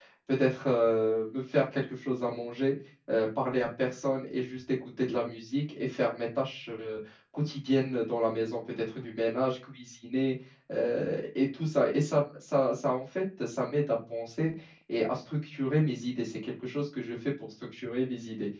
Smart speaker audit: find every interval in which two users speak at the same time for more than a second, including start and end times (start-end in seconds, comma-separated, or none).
none